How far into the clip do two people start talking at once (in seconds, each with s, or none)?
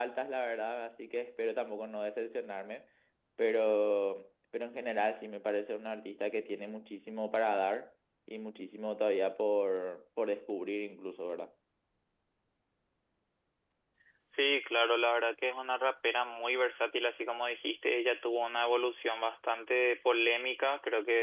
none